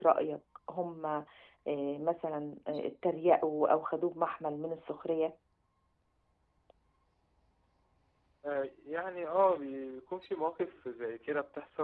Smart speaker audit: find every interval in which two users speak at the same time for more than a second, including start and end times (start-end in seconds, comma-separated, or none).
none